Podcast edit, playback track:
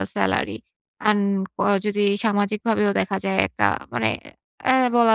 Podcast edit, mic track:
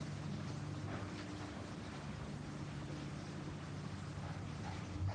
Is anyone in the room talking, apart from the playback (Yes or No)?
No